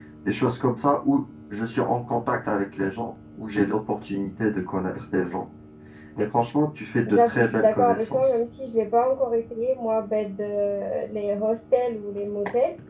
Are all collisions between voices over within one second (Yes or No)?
No